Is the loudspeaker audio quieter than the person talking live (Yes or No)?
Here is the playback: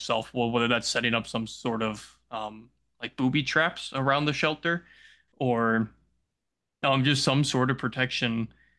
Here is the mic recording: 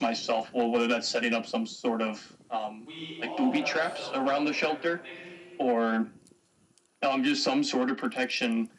No